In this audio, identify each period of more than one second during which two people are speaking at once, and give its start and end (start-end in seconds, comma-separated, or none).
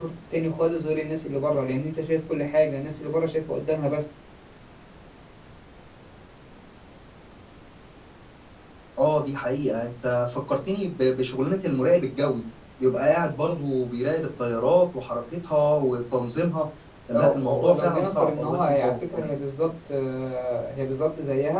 17.2-19.2